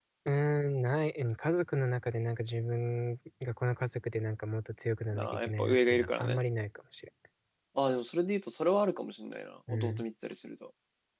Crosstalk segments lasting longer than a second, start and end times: 5.2-6.4

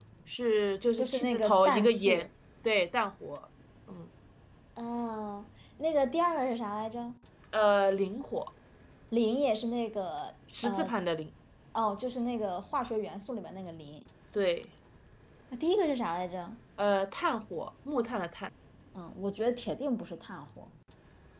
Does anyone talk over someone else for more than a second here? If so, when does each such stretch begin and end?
1.0-2.2

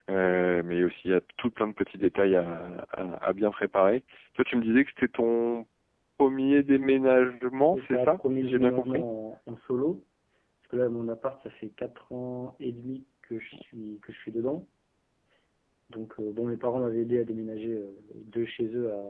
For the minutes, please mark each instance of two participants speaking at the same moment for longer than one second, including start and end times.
7.5-9.0

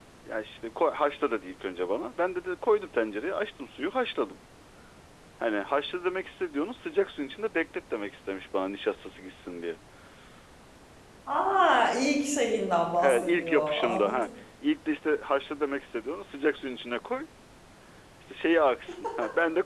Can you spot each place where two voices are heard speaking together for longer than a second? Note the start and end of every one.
13.0-14.3

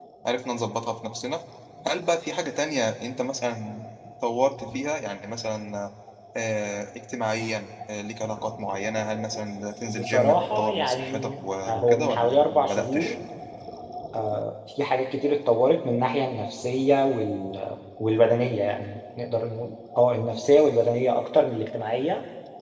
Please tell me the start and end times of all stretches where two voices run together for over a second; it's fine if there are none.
9.9-11.3, 11.7-13.2

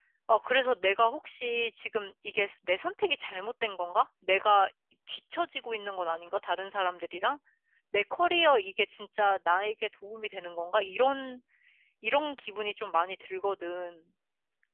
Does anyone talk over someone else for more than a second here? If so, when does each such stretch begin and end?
none

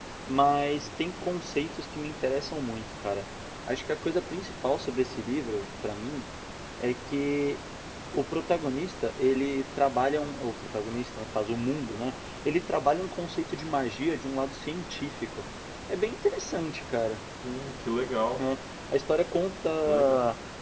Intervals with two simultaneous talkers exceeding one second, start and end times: none

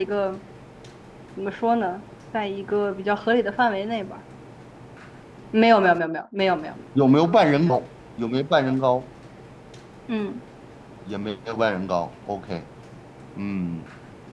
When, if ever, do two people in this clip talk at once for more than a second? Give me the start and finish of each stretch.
none

